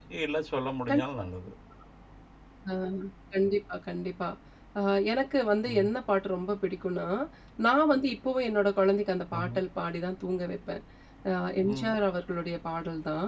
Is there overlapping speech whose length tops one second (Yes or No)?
No